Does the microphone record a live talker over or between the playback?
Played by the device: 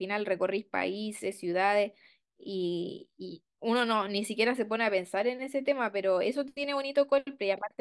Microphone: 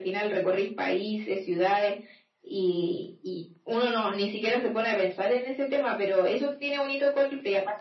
No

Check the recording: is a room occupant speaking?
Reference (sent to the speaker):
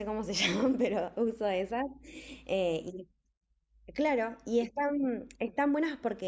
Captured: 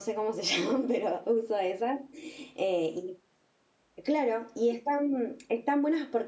No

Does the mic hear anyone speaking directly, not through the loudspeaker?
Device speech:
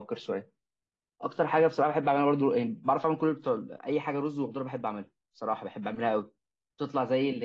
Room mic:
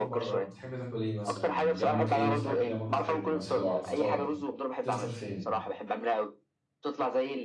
Yes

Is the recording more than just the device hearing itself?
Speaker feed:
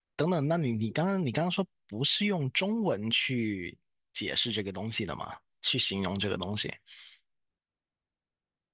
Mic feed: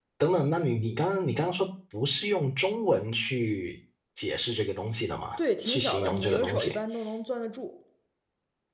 Yes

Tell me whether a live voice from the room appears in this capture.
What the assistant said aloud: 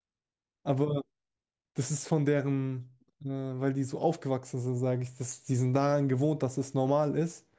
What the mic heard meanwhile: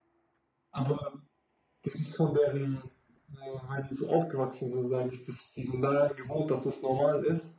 No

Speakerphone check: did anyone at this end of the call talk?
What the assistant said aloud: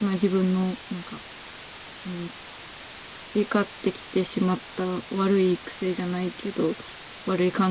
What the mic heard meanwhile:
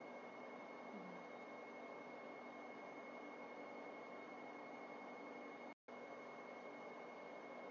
No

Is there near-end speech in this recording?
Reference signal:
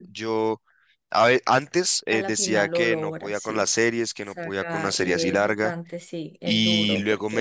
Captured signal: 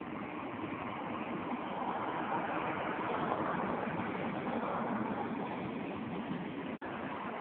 No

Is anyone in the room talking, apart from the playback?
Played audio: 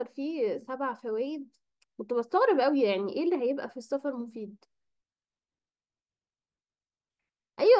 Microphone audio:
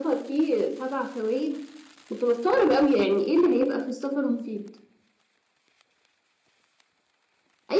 No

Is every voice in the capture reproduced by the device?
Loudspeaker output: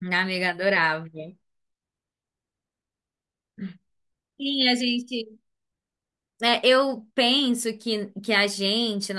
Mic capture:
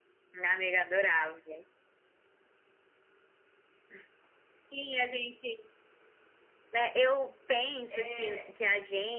No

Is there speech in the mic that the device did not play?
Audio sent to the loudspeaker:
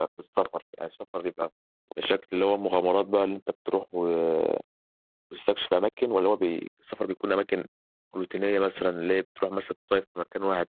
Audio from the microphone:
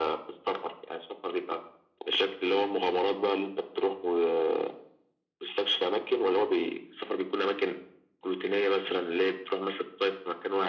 No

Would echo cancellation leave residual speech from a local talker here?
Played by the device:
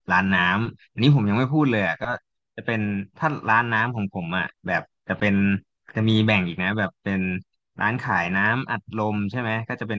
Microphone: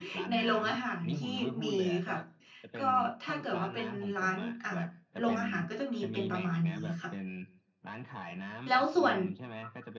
Yes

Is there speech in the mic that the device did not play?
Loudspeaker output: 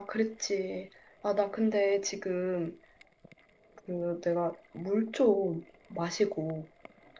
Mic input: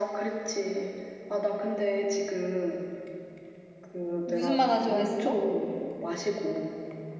Yes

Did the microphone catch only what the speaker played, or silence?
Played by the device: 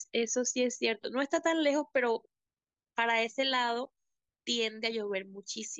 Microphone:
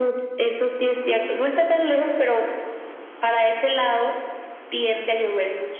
Yes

